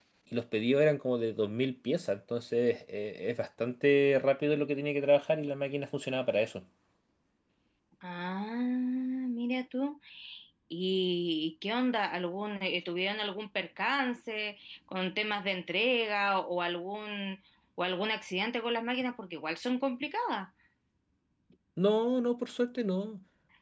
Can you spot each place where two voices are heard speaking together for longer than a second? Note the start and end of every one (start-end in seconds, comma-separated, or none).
none